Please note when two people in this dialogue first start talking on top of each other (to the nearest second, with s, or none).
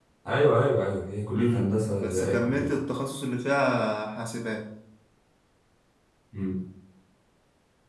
1 s